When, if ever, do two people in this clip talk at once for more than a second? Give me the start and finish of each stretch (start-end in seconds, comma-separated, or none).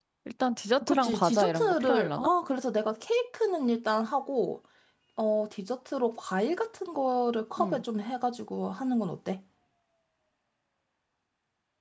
0.9-2.3